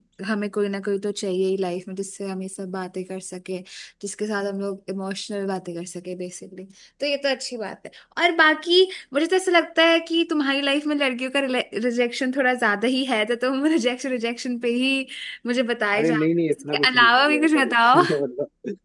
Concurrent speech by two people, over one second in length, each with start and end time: 16.5-18.0

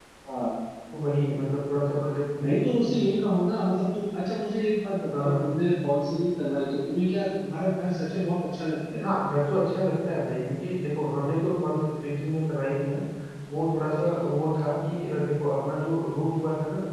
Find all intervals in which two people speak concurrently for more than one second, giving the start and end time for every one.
none

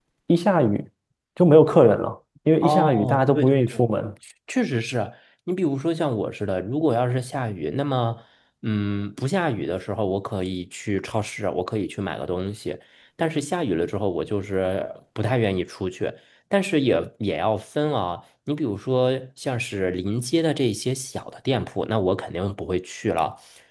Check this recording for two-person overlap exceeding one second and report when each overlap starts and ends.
2.6-3.8

